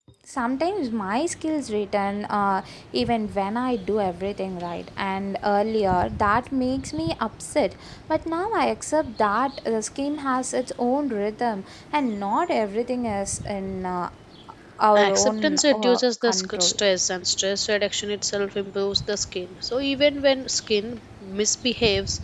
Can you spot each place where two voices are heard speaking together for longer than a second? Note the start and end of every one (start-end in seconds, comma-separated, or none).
14.9-16.7